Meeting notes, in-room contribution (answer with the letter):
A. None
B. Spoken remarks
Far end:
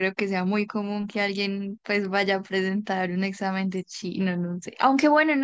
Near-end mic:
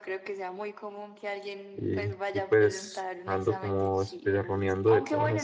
B